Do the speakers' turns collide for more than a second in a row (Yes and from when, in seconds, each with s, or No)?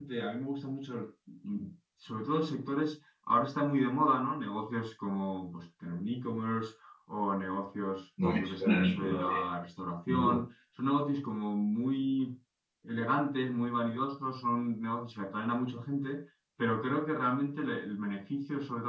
Yes, from 8.2 s